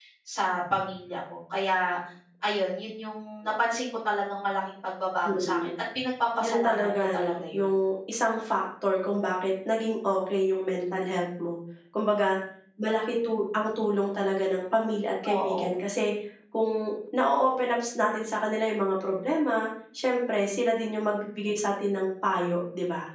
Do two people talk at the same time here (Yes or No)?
Yes